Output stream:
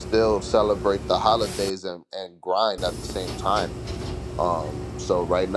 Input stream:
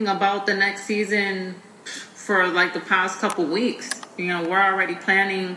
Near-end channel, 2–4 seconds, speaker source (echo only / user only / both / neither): user only